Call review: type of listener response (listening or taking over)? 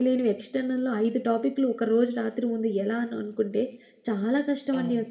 listening